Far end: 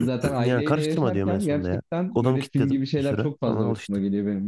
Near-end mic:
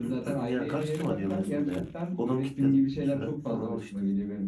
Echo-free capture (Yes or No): No